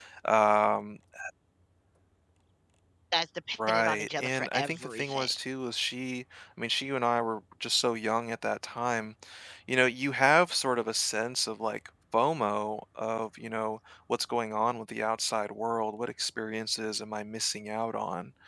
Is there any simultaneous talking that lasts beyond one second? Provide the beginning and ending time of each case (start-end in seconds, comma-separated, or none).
3.7-5.3